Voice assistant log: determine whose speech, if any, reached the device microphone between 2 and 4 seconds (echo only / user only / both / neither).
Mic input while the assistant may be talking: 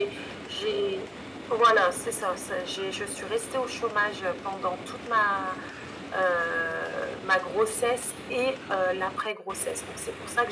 echo only